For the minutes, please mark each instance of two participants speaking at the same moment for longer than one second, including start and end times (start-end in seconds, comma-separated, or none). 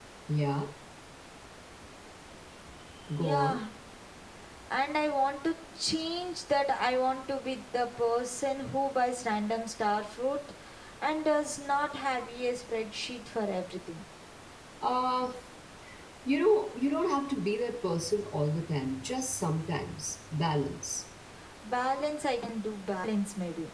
none